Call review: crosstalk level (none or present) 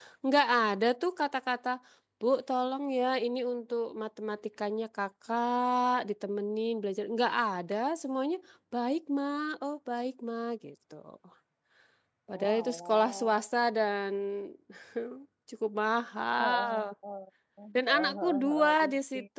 present